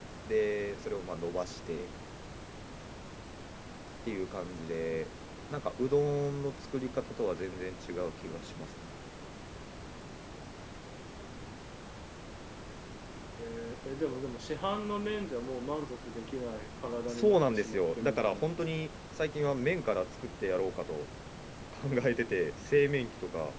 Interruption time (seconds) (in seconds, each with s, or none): 17.1 s